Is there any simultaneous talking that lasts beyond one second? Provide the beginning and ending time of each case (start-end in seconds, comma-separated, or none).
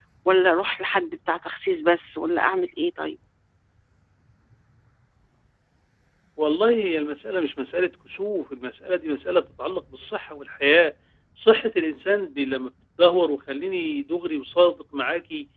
none